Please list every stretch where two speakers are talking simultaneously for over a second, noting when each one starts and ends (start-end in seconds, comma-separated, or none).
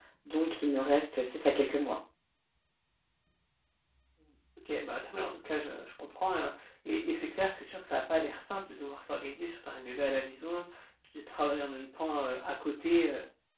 none